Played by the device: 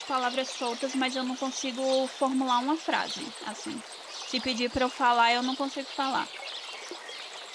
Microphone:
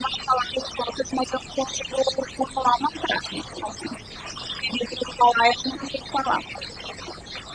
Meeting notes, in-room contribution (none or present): none